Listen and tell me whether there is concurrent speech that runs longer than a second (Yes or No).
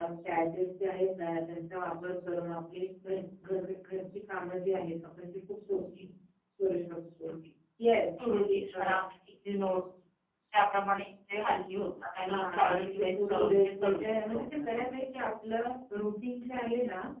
Yes